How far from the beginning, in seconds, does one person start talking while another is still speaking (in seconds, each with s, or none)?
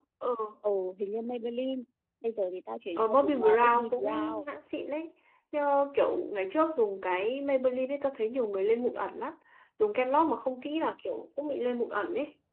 3.0 s